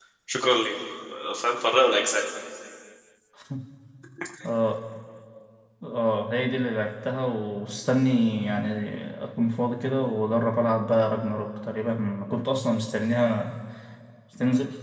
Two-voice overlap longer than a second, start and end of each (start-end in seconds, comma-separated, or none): none